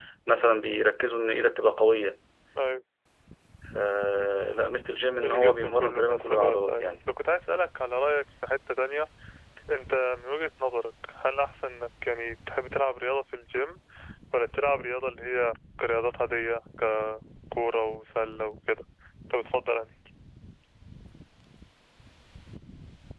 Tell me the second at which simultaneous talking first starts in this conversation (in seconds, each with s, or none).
5.2 s